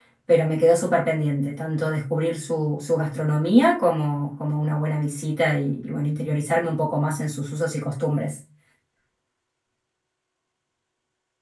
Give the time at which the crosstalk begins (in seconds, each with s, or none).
none